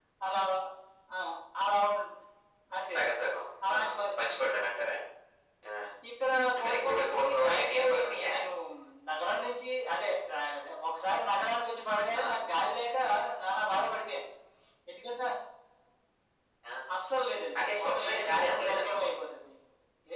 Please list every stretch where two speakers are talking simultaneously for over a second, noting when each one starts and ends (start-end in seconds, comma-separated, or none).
6.7-8.3, 17.6-19.0